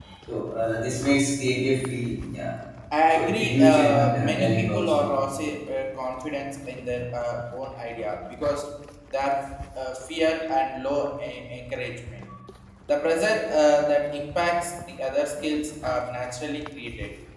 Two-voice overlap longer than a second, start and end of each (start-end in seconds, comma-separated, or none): 3.1-5.1